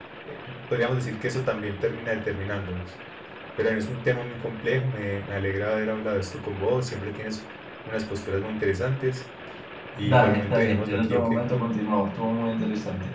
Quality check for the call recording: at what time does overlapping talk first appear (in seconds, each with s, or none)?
10.0 s